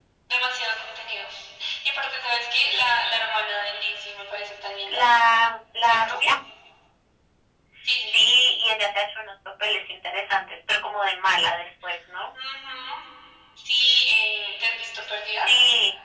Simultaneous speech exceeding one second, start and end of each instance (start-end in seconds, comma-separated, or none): none